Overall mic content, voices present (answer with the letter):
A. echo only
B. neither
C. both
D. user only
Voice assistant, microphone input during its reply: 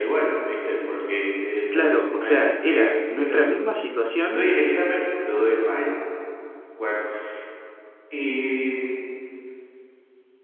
C